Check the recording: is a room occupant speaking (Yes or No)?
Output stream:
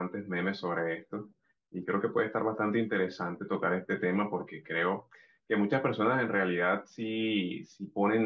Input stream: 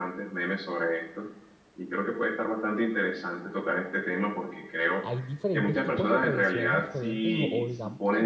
Yes